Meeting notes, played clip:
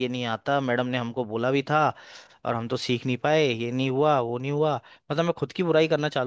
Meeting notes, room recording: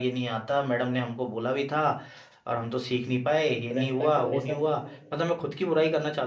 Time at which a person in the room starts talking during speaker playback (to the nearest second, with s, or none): 4 s